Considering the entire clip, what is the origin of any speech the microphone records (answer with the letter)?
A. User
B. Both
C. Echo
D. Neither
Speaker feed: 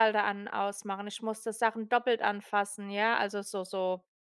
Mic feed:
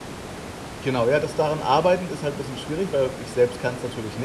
A